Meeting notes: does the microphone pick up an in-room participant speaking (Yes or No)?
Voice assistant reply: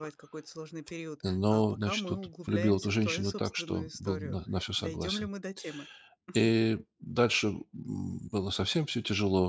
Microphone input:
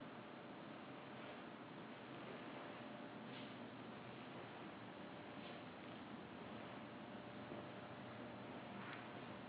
No